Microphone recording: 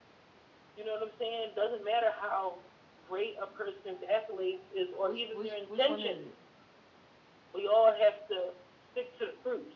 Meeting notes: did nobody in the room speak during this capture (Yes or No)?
No